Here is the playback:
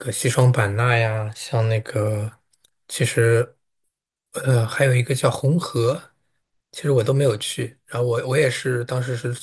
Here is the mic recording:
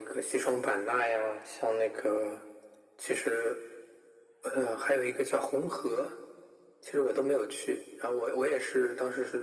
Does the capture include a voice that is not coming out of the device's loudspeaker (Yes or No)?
No